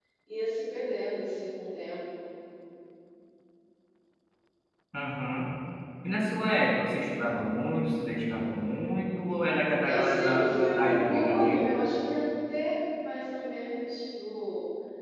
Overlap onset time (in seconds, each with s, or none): 9.8 s